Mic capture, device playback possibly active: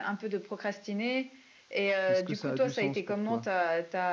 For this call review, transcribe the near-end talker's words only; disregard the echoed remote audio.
Est-ce que ça a du sens pour toi?

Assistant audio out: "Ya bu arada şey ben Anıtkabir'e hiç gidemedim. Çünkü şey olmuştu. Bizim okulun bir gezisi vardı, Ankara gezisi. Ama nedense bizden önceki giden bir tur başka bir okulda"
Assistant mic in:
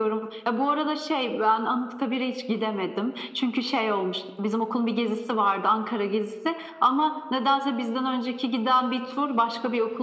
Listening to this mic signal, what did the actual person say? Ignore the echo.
none

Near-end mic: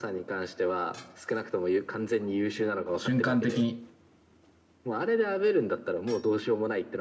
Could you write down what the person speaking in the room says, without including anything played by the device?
瞬間的に。

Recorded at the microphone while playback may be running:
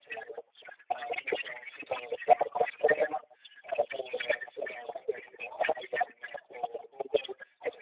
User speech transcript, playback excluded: none

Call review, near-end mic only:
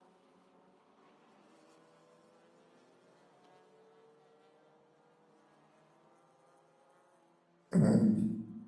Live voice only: Mm,

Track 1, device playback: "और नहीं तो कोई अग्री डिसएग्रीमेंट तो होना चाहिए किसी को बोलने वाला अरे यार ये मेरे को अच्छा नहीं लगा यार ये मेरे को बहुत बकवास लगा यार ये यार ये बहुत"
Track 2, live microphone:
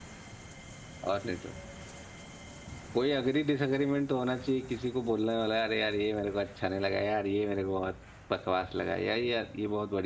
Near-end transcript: none

